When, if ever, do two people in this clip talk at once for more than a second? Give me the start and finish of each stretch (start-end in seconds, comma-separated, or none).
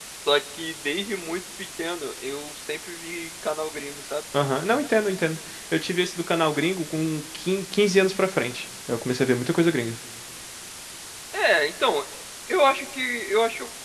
none